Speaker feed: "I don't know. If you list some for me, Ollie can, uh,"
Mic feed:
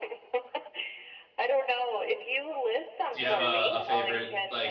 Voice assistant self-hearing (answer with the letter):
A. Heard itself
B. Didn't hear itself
A